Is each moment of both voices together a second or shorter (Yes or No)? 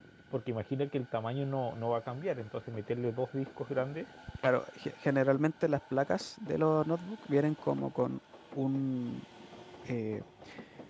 Yes